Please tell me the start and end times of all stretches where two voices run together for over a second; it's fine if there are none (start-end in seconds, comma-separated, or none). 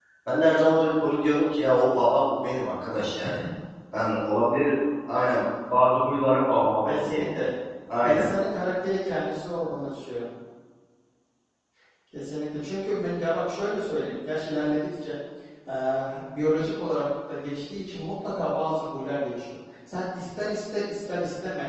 none